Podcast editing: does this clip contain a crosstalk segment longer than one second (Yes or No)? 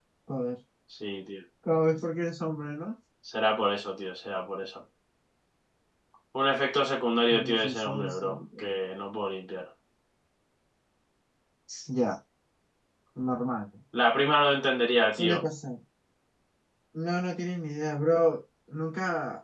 Yes